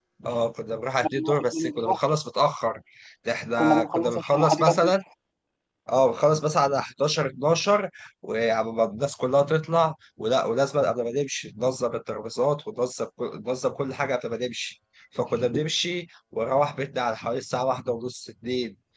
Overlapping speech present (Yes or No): Yes